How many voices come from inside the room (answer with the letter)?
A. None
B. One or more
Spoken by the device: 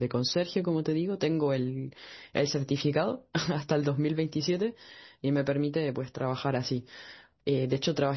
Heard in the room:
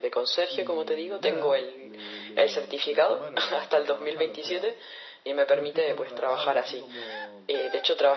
B